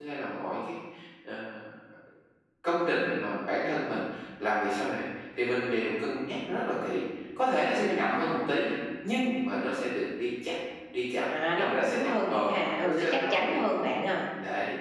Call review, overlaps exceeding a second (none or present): present